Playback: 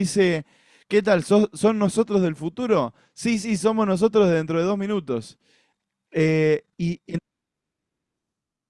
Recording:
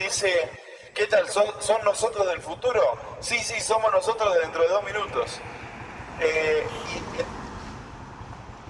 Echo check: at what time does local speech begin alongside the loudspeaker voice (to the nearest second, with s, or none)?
none